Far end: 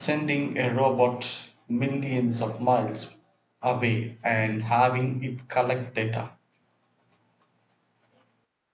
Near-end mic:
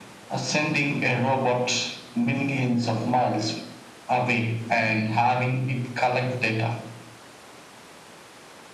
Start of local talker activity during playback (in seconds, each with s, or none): none